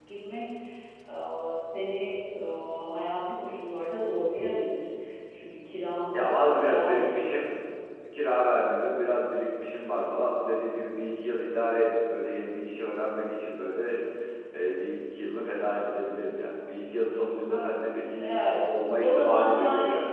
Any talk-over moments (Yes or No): Yes